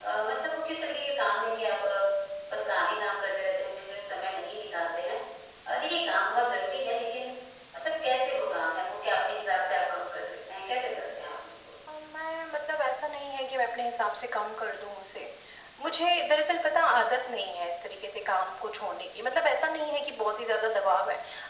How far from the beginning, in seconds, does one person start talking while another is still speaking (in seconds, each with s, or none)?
none